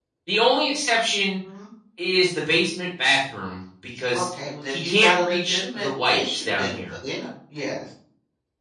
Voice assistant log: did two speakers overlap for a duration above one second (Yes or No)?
Yes